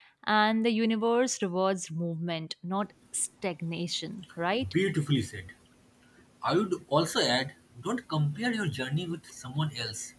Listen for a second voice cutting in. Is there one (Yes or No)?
No